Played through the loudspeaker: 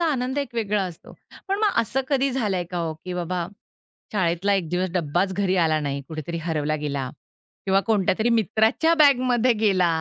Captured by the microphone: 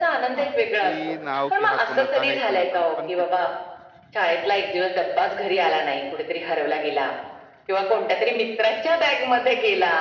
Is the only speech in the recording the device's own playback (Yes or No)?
No